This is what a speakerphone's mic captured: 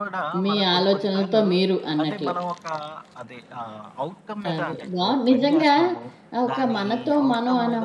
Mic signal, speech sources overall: both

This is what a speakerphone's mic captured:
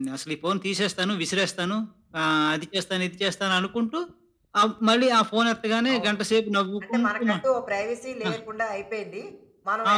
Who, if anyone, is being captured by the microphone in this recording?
both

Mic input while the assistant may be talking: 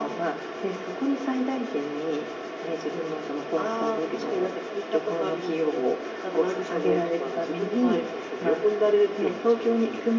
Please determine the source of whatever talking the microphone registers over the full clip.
echo only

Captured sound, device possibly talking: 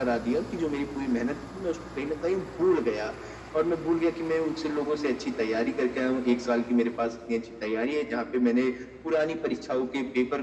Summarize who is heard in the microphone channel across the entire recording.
echo only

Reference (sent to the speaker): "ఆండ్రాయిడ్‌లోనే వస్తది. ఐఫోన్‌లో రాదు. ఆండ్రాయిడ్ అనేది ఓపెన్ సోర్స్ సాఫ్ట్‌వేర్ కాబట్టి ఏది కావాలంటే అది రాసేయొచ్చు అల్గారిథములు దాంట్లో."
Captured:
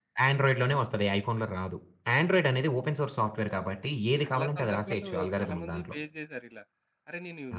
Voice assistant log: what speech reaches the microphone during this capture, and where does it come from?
both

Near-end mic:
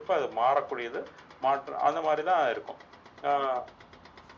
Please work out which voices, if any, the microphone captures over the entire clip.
echo only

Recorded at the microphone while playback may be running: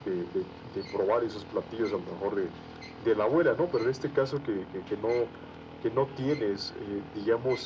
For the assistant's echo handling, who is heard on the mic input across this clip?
echo only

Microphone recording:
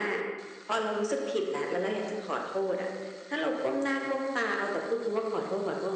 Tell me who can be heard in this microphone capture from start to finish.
echo only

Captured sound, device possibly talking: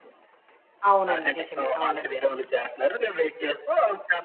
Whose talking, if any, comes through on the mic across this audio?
both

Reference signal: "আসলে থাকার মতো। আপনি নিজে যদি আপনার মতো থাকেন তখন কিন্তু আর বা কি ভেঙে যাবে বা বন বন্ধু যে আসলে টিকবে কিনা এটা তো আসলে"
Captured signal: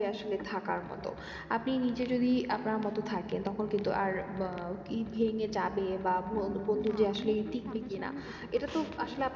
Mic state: both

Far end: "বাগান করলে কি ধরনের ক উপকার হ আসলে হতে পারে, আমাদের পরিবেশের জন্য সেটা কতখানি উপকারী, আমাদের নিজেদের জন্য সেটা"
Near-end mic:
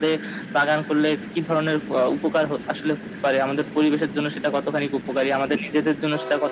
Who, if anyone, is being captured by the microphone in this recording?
echo only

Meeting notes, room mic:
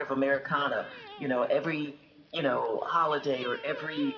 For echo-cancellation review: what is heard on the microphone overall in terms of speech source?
echo only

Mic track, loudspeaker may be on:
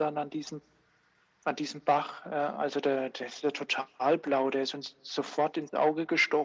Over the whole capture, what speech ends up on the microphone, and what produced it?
echo only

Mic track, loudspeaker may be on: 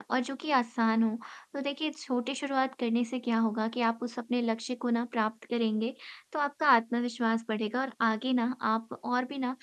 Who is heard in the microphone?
user only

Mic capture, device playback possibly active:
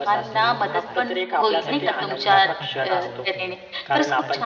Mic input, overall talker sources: both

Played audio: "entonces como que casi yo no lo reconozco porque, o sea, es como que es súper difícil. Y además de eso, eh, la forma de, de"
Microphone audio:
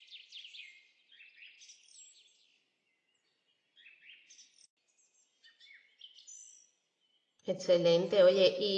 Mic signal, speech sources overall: user only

